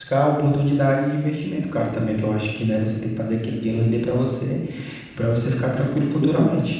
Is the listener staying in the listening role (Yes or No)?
No